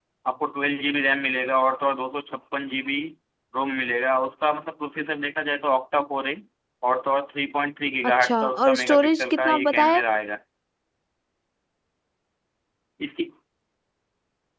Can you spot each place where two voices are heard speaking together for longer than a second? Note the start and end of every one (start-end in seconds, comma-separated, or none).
8.2-10.0